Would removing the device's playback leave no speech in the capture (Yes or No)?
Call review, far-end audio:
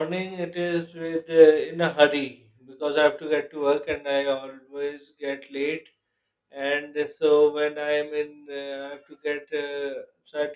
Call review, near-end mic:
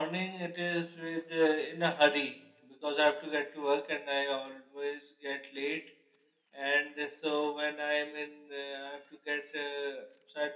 Yes